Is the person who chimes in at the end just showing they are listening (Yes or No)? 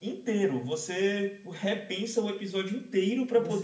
Yes